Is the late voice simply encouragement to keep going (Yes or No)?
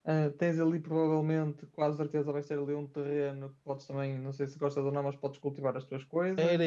No